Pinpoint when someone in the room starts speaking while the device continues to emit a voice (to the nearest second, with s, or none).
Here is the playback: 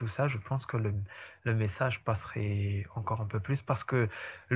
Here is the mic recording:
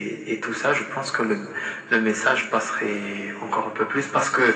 none